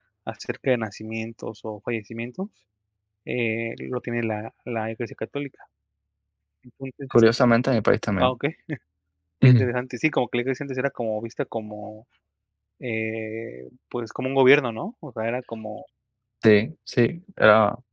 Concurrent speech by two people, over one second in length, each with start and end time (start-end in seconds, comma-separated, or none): none